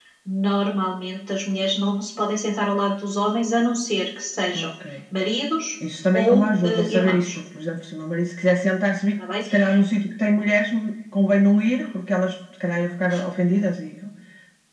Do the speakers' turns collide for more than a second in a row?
Yes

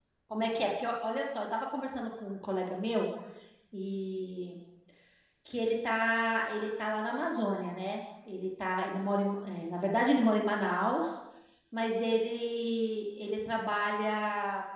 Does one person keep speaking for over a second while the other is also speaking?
No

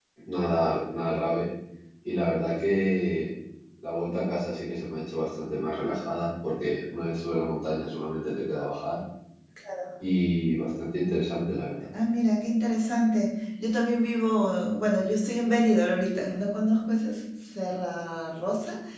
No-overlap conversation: Yes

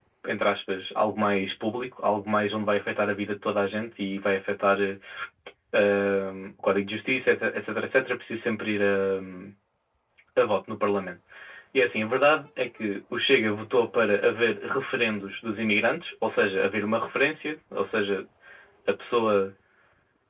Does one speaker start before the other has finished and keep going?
No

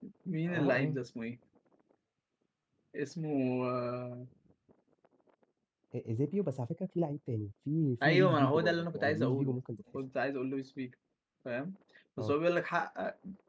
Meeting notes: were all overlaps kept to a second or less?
No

